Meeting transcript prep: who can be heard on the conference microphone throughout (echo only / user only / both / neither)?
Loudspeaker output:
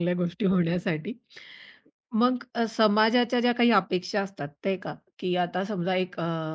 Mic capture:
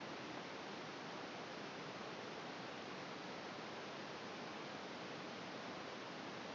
neither